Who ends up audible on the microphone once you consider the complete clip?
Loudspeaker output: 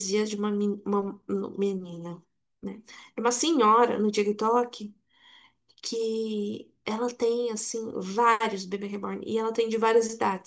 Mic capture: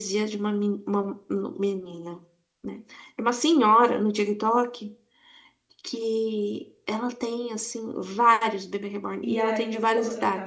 both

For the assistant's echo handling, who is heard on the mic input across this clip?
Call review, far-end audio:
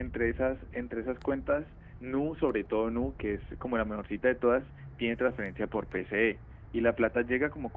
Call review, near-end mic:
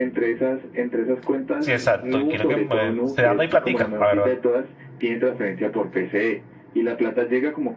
both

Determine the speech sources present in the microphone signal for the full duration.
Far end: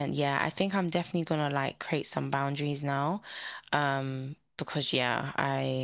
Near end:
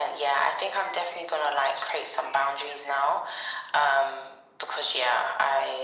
echo only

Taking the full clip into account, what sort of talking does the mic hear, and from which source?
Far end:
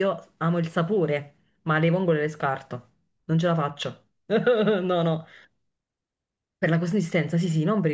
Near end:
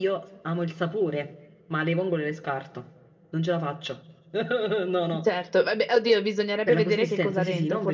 both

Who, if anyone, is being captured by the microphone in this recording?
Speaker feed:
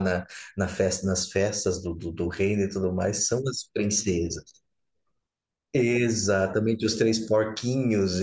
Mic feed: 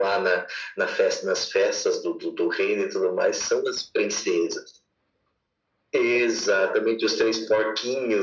echo only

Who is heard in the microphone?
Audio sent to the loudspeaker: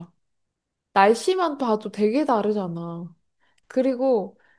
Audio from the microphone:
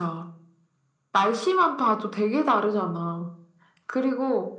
echo only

